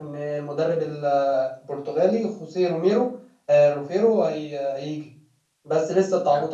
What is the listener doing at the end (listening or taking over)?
listening